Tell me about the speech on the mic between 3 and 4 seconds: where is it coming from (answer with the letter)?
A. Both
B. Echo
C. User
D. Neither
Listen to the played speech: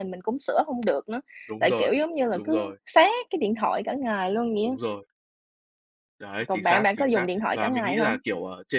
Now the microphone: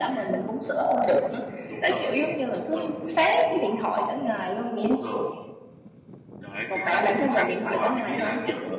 B